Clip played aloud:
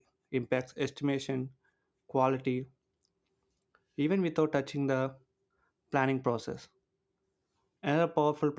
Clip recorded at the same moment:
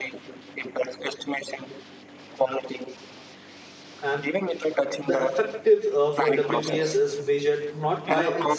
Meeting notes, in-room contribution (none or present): present